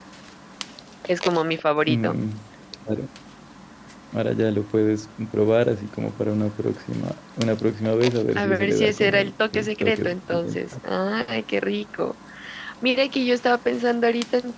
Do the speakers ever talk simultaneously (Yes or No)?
Yes